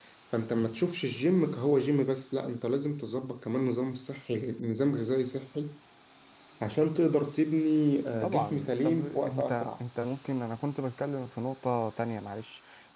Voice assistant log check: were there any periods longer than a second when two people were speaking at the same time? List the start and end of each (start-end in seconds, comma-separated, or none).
8.2-9.7